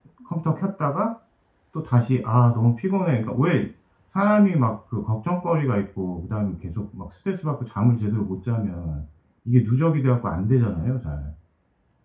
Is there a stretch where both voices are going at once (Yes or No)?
No